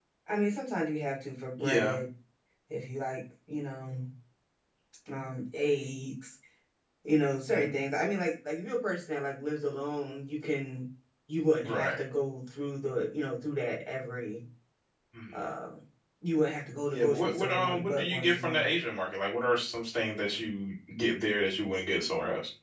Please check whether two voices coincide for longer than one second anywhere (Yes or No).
Yes